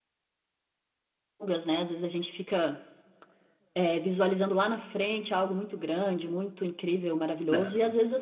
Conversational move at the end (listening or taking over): listening